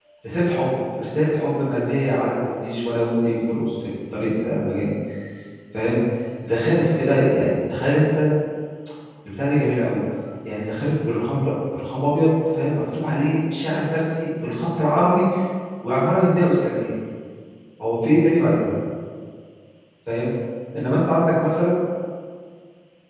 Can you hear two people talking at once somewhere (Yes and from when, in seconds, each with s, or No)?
No